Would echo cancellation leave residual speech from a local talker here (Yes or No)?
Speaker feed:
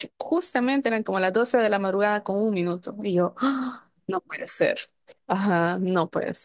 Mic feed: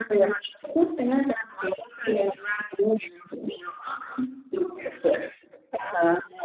No